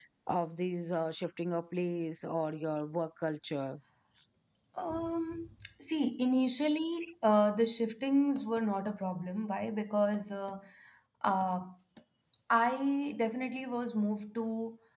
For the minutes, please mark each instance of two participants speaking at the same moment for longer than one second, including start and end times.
none

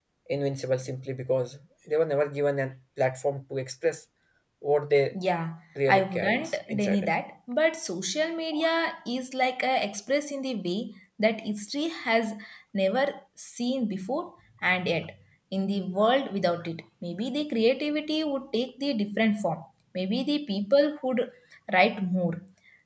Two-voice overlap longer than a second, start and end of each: 5.9-7.1

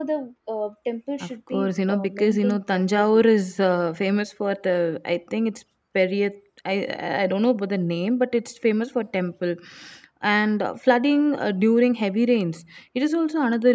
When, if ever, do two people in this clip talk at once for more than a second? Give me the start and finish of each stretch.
1.2-3.2

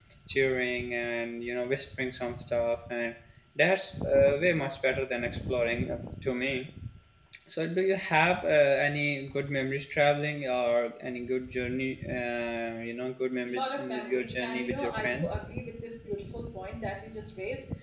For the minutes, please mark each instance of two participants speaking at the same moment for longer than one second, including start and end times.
13.4-15.3

